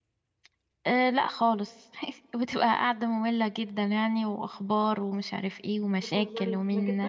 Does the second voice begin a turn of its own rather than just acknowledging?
Yes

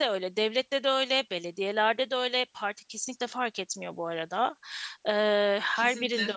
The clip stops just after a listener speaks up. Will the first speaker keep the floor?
Yes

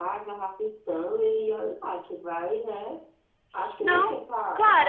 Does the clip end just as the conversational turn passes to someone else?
Yes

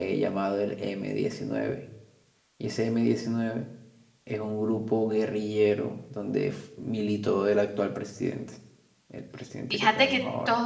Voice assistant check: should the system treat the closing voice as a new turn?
Yes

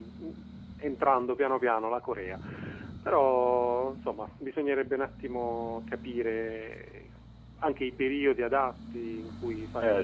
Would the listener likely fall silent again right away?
No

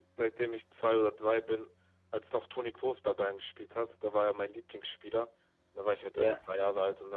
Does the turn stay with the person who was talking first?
Yes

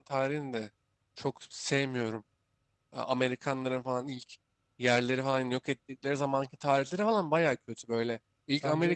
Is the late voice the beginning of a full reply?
No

